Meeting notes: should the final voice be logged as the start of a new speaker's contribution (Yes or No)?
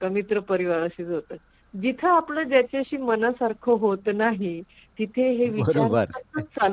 No